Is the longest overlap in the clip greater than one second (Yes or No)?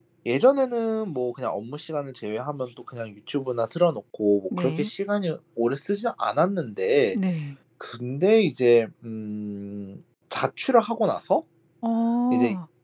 No